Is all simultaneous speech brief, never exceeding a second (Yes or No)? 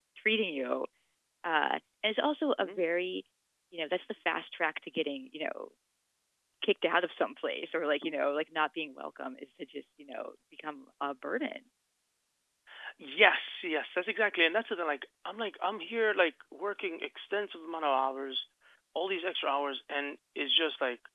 Yes